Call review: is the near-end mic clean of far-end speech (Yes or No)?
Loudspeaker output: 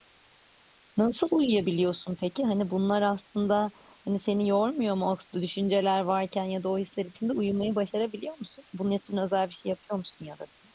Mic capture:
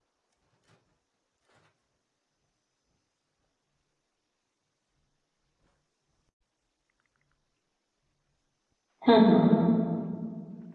Yes